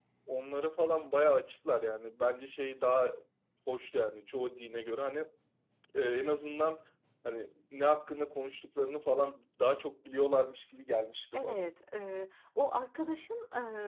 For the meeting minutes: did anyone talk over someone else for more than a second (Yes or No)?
No